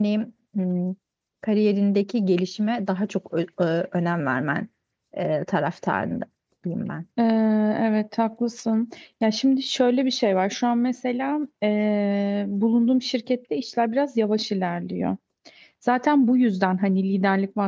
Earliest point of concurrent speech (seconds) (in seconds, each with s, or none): none